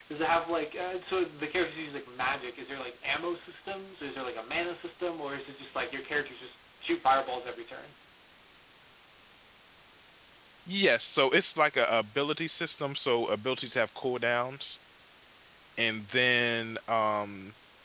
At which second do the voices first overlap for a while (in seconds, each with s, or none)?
none